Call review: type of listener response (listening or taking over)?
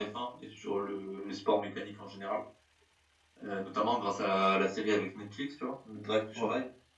listening